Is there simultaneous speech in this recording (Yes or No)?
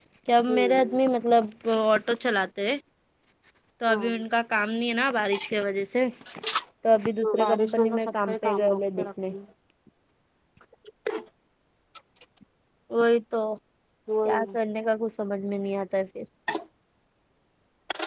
Yes